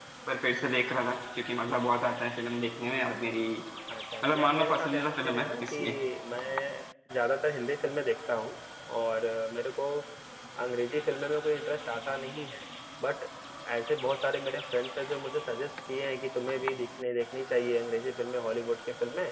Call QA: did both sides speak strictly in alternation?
No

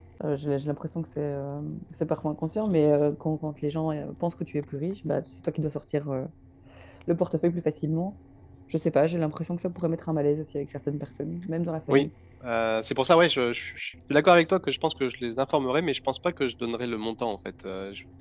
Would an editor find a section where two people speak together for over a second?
No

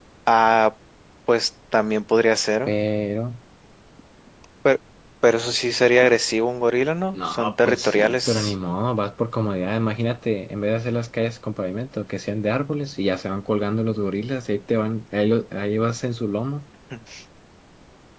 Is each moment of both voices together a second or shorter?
No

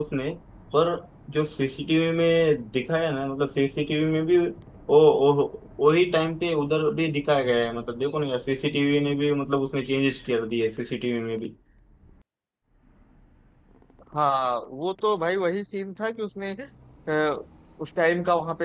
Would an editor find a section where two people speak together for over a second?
No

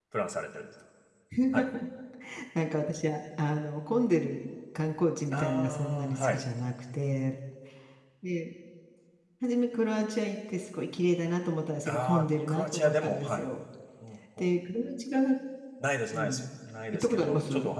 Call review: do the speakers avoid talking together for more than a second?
No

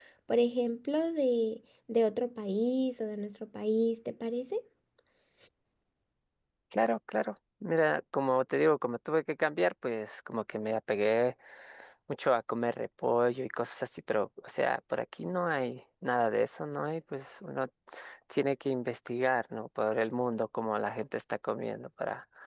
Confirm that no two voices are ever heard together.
Yes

